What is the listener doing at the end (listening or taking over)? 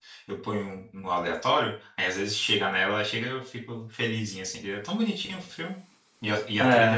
taking over